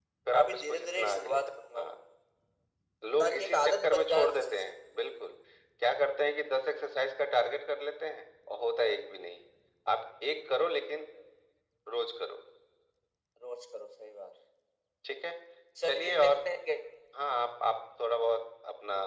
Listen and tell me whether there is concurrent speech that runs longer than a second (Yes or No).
Yes